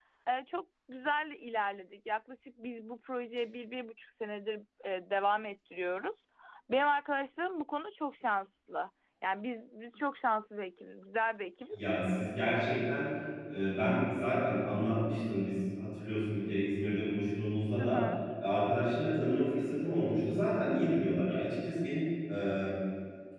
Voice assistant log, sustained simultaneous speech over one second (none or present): none